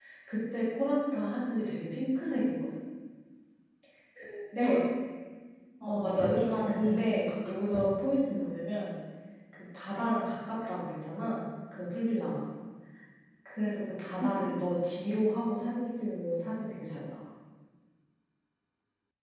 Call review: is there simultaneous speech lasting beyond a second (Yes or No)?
Yes